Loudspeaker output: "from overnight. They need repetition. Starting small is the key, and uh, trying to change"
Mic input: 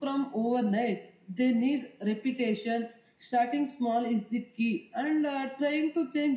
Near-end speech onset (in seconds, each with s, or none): none